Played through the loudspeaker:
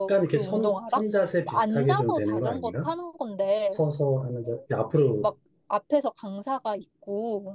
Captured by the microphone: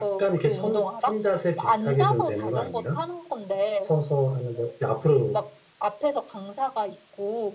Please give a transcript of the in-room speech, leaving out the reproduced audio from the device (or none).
none